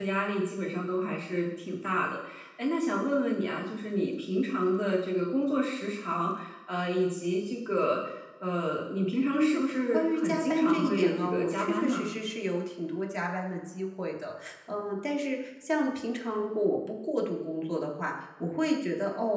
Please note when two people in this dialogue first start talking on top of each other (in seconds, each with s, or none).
9.3 s